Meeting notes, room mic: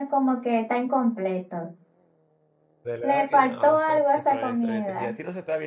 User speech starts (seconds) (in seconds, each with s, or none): 2.8 s